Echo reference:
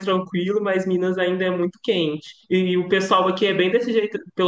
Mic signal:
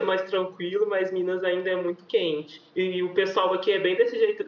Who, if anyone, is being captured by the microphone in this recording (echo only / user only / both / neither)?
echo only